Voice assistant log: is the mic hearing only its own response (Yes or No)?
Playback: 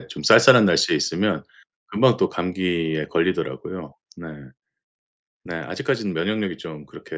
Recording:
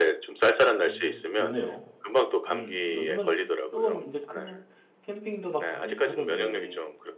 No